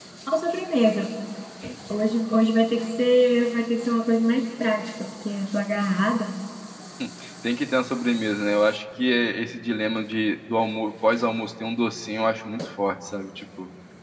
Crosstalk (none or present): none